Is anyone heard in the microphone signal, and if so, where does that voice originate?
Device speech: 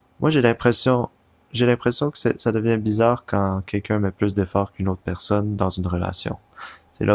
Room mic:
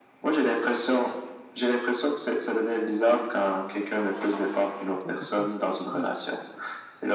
both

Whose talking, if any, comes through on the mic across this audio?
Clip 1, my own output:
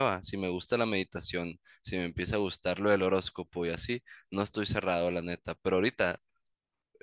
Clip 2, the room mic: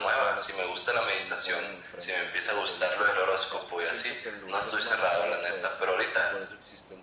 both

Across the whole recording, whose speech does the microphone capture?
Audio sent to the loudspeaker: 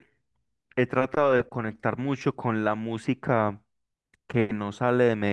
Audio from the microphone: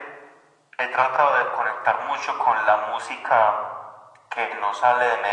echo only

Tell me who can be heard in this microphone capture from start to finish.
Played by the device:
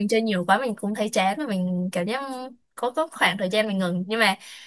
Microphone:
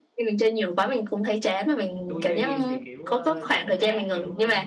both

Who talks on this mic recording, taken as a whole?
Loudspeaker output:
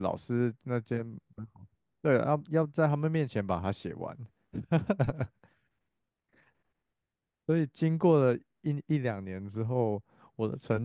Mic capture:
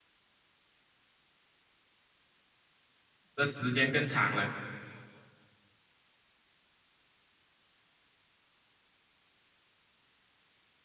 user only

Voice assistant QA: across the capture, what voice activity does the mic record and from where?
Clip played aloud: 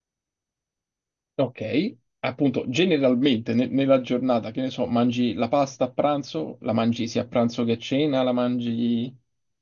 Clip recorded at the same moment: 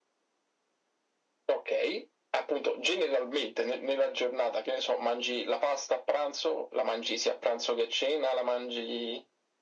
echo only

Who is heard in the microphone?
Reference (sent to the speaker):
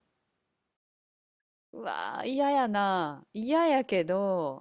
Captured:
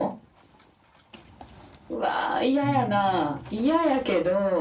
both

